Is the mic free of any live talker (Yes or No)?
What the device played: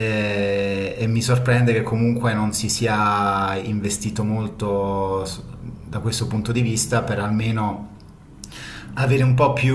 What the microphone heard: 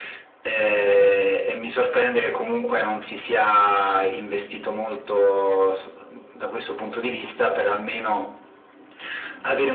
Yes